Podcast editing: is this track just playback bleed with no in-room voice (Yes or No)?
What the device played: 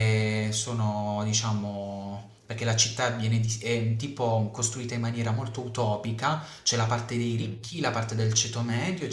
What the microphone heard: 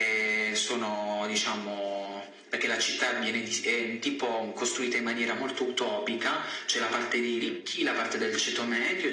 Yes